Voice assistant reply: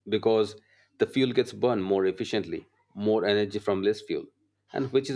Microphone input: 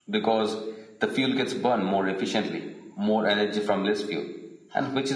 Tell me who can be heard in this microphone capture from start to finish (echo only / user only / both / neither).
echo only